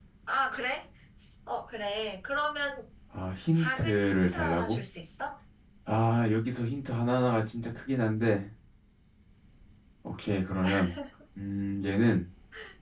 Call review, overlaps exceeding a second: present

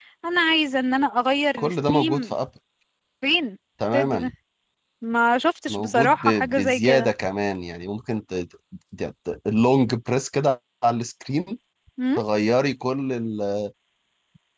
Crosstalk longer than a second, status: present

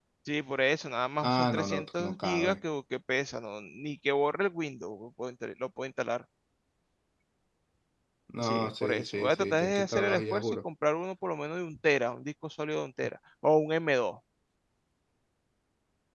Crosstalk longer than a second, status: present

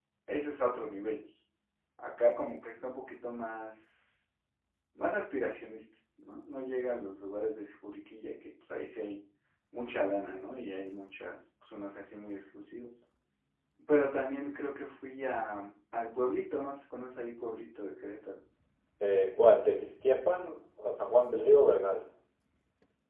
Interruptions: none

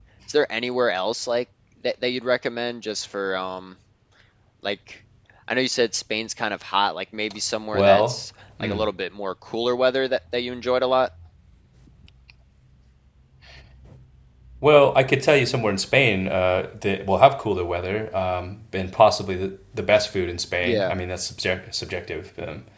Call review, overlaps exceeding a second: none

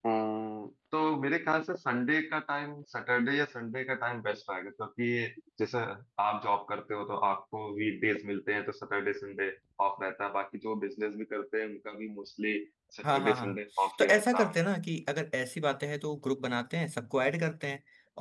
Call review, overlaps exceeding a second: present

